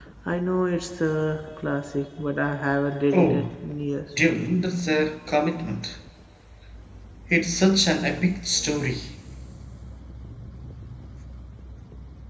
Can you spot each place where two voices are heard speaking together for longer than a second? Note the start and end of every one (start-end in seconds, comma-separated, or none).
none